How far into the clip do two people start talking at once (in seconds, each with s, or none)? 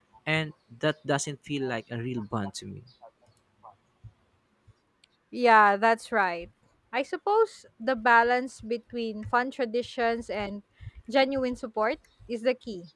none